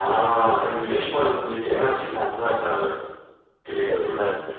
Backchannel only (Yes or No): No